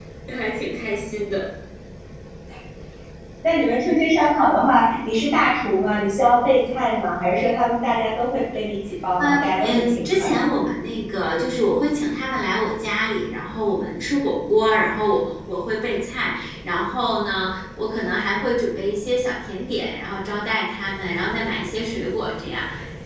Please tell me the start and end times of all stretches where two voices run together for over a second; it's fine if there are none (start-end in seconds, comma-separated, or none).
9.2-10.4